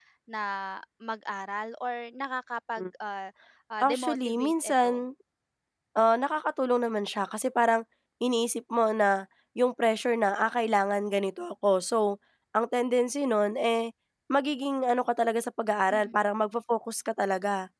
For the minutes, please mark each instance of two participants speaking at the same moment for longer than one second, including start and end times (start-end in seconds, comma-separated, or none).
3.8-5.0